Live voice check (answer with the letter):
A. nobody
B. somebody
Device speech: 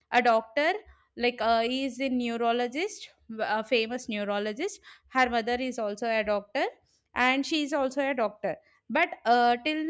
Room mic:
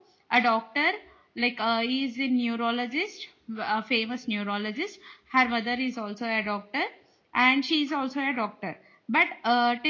A